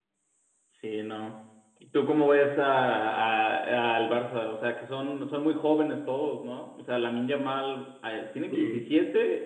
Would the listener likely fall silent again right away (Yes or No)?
Yes